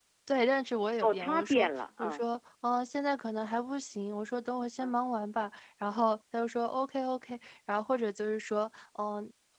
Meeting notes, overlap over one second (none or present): present